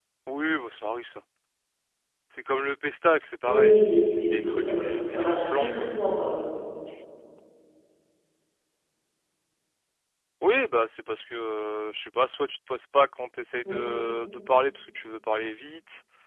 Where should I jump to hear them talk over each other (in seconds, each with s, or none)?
3.5 s